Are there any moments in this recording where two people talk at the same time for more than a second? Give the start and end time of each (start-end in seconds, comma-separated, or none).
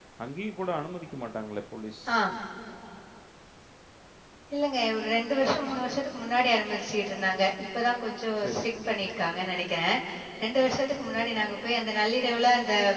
none